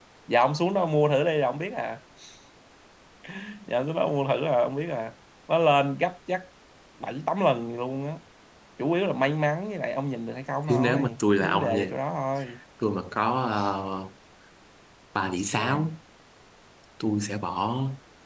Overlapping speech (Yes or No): Yes